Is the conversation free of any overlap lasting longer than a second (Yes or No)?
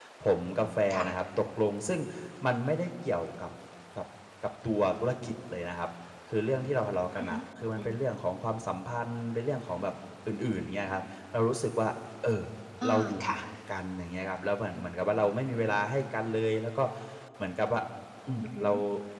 Yes